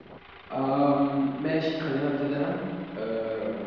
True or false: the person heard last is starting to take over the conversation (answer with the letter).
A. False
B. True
A